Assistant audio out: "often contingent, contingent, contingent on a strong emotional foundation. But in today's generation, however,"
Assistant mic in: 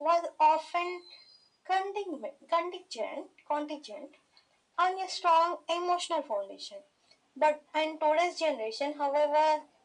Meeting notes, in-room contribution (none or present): none